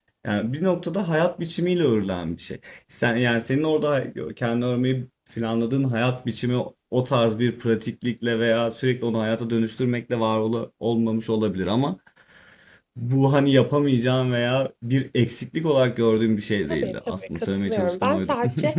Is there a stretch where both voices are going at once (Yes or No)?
Yes